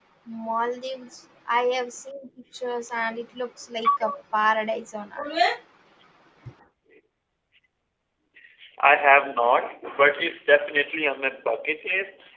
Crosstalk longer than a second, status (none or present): none